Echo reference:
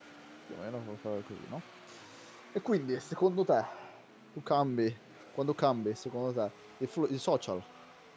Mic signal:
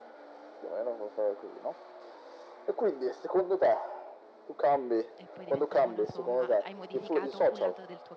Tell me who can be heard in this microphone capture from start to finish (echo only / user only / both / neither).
both